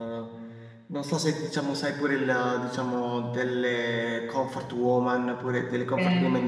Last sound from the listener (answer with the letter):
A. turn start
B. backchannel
B